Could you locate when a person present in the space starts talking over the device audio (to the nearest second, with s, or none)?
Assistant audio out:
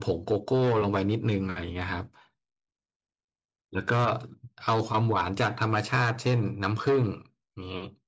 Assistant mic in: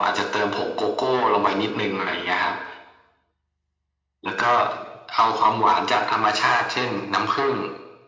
none